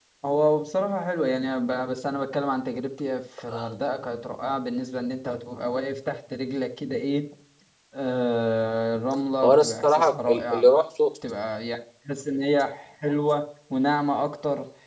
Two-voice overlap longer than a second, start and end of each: 9.4-10.6

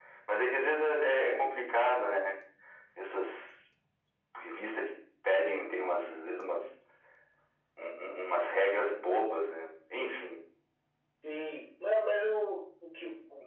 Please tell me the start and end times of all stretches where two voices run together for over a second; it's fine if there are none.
none

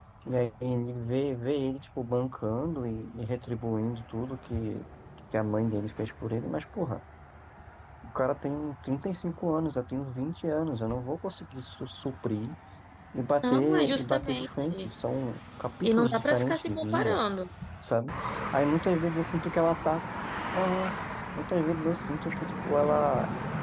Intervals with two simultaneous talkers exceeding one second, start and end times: 13.4-14.9, 15.8-17.2

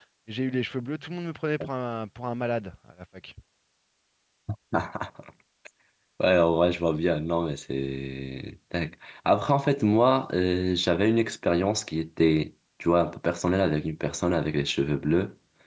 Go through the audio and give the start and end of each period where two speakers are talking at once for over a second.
none

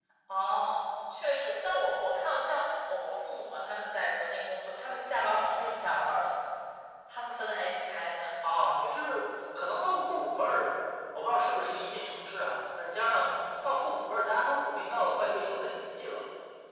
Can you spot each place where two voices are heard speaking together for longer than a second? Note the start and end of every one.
none

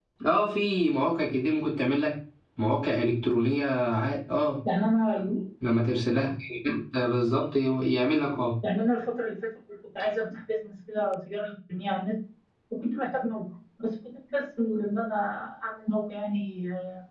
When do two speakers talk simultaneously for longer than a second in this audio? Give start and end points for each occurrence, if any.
none

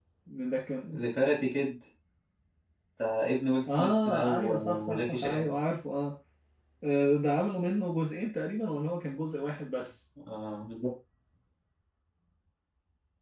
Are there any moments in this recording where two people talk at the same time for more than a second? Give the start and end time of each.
3.7-5.5

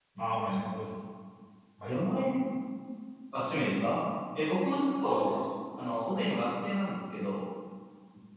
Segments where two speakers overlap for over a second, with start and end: none

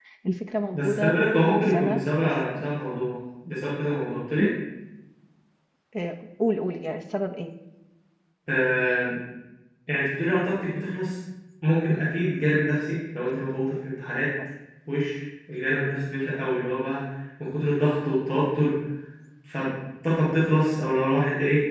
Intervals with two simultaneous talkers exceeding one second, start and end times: 0.7-2.3

